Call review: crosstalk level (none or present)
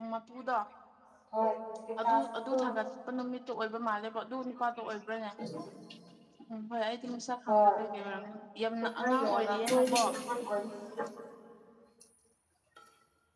present